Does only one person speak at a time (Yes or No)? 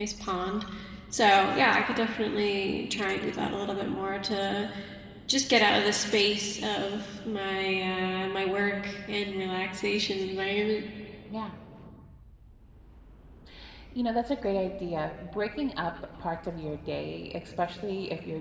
Yes